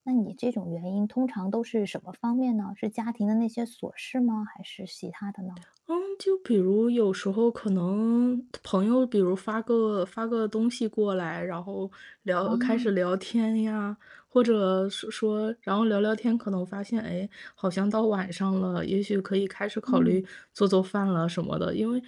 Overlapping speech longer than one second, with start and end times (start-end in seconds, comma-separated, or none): none